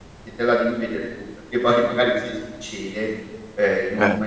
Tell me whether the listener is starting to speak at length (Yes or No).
No